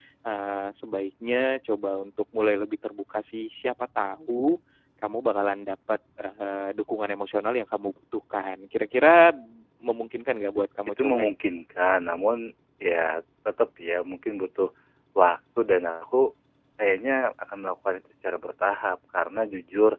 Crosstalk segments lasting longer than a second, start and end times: none

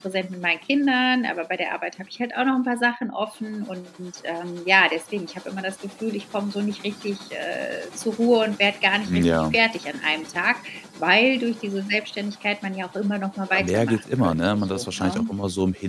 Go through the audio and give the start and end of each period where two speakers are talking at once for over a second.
13.5-15.2

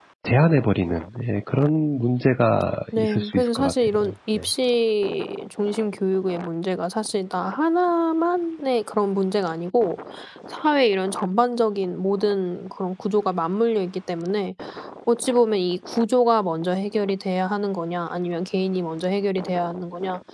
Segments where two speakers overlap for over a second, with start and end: 3.0-4.4

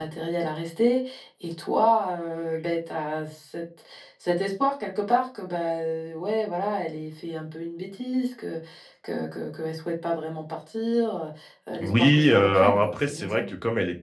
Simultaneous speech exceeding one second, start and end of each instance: 11.8-13.4

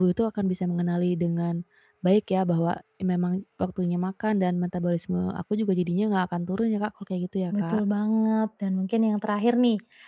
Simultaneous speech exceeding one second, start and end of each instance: none

